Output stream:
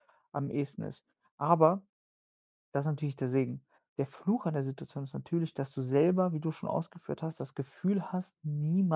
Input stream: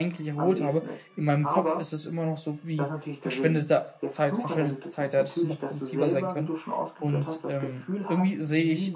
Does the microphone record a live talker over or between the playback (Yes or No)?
Yes